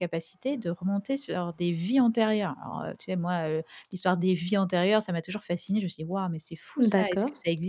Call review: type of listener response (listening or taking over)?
listening